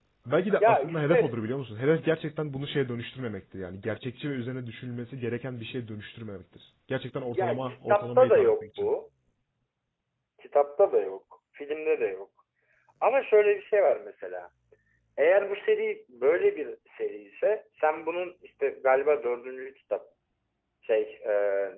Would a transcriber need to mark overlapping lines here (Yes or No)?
Yes